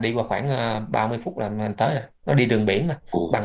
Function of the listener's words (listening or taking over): taking over